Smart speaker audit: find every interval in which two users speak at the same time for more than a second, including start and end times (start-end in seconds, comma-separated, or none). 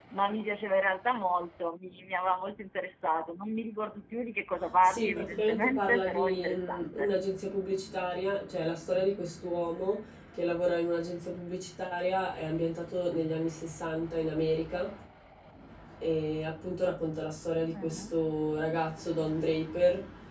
4.8-7.1